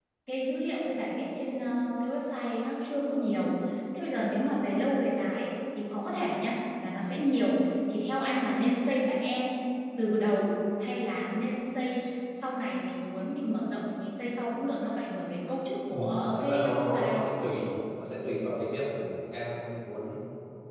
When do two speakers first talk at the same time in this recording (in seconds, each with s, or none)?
15.9 s